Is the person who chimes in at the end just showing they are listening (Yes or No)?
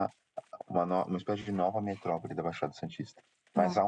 Yes